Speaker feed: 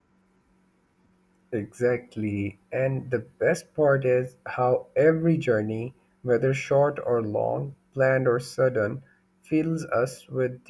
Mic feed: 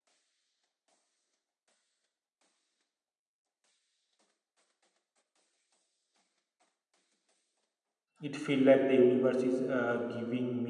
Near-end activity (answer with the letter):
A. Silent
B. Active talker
B